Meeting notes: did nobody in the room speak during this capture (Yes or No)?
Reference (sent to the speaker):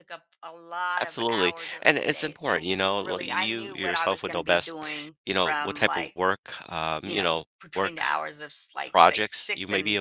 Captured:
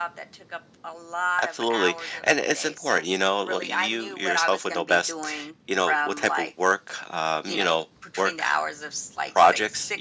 Yes